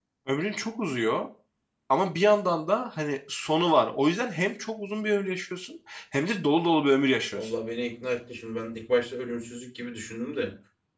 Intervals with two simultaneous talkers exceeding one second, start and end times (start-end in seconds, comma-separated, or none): none